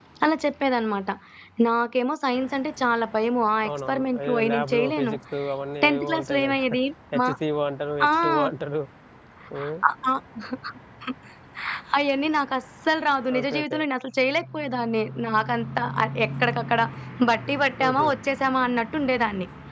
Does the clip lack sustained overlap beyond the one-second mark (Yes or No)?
No